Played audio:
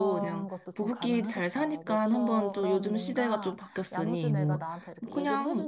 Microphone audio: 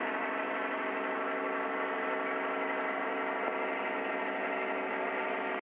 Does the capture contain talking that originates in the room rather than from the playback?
No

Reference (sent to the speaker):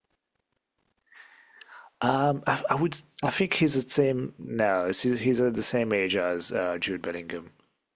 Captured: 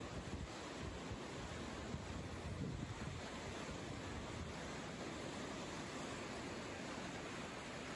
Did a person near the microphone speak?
No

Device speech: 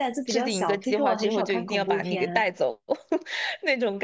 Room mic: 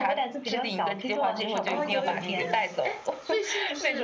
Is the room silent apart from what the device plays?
No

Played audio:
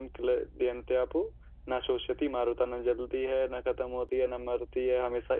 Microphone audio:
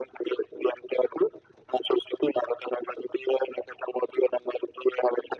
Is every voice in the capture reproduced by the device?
Yes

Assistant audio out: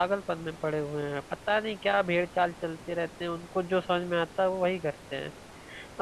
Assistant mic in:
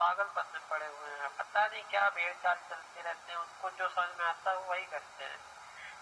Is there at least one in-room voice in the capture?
No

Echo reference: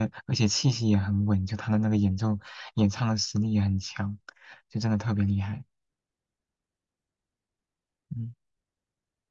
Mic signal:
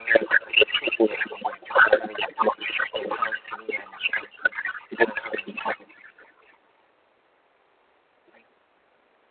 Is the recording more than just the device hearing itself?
No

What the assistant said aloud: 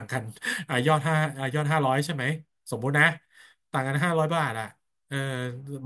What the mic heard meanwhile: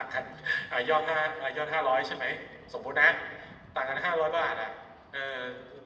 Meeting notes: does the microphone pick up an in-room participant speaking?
No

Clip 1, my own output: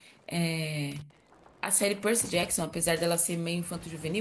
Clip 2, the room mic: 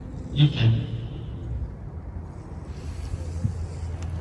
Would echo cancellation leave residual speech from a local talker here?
Yes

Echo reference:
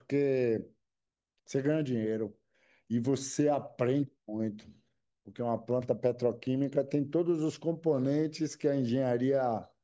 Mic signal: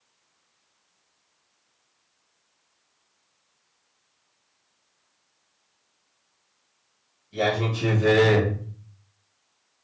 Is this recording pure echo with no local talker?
No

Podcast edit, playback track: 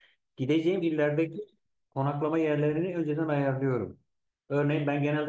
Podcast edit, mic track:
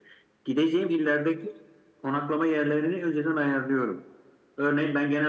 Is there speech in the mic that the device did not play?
No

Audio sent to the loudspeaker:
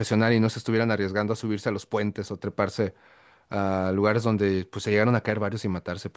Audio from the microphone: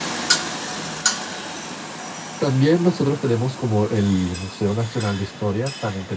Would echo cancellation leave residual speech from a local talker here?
Yes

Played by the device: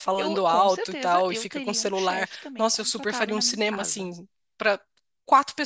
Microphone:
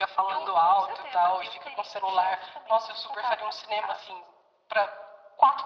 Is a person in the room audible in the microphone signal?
No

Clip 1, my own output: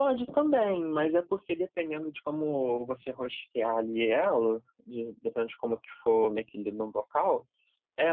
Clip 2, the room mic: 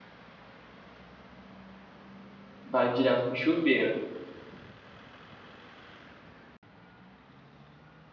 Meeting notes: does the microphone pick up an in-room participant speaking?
Yes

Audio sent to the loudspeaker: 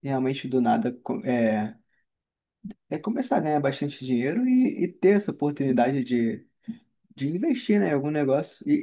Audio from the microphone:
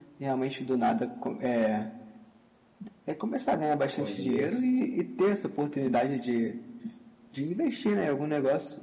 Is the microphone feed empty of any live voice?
No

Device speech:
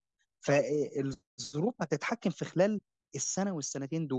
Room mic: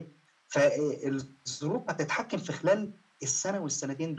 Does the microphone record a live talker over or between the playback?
No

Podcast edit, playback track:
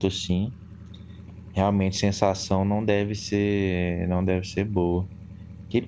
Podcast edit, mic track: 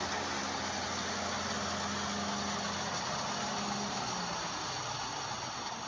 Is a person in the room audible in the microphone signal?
No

